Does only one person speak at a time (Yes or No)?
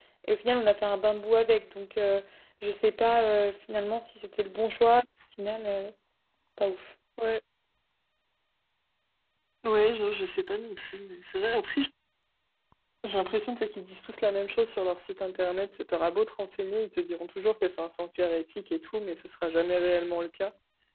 Yes